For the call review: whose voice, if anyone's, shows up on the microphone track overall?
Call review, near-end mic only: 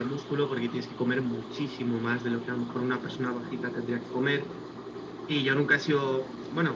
echo only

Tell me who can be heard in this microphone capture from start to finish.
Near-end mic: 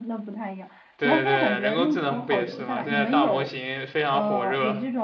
both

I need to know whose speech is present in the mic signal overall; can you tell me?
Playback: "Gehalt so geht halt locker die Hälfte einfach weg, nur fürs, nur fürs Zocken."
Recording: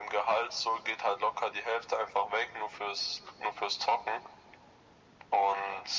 echo only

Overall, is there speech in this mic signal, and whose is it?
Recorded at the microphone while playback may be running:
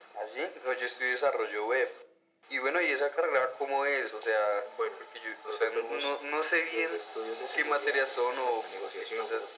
echo only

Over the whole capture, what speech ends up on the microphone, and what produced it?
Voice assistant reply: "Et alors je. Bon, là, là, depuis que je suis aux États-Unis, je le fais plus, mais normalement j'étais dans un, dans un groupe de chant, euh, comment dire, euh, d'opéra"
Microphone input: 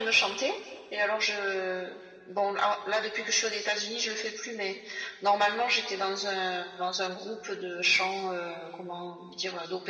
echo only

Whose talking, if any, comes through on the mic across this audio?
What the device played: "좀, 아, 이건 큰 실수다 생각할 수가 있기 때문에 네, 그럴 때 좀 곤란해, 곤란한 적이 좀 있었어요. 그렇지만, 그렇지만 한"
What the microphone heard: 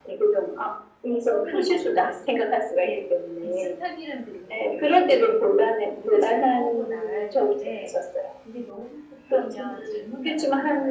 both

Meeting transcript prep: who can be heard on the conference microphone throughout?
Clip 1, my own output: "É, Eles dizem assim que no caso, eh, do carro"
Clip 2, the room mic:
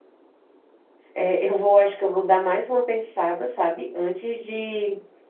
user only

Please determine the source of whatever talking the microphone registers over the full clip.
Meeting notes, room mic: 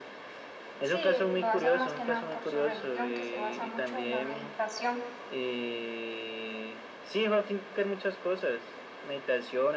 both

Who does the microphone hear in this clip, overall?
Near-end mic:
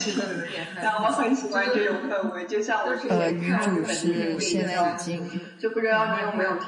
both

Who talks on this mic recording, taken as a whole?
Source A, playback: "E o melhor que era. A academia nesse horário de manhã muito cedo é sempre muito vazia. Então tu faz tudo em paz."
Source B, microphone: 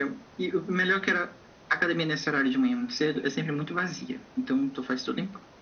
echo only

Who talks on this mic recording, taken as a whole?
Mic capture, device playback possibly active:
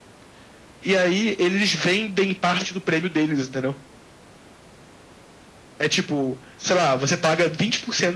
echo only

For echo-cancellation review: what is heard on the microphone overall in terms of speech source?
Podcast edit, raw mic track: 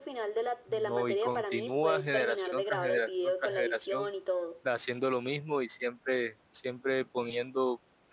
both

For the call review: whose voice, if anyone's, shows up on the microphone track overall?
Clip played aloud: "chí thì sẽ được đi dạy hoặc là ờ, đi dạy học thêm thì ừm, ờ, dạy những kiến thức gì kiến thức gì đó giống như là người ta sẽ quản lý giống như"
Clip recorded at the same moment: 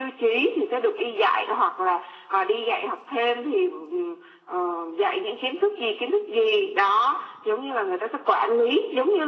echo only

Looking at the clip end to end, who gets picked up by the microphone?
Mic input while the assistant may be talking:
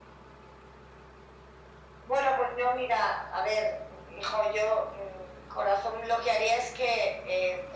echo only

